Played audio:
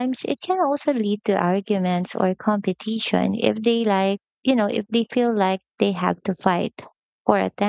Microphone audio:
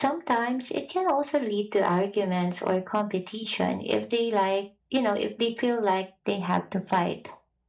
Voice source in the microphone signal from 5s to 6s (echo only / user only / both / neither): echo only